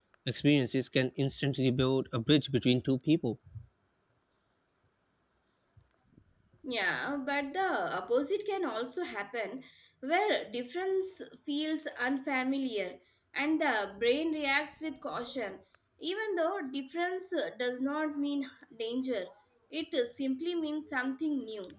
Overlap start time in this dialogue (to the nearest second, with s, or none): none